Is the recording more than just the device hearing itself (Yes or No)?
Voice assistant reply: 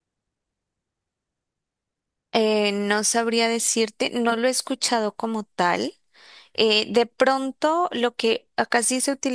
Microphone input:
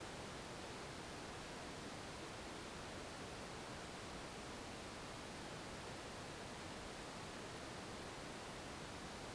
No